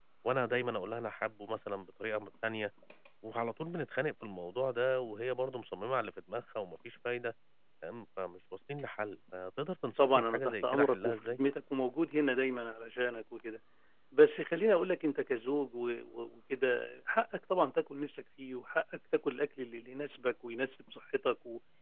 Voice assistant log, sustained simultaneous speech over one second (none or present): present